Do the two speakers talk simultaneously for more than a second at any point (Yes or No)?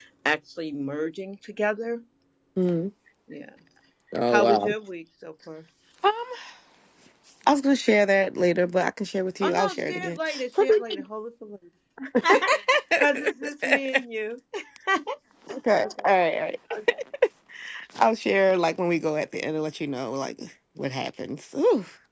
Yes